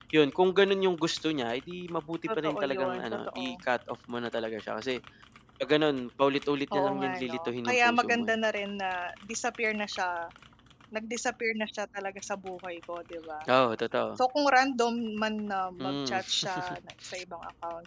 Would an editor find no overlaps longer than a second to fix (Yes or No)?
No